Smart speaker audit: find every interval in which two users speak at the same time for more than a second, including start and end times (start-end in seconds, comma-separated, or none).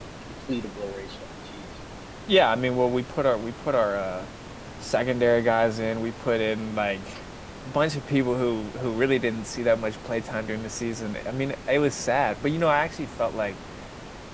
none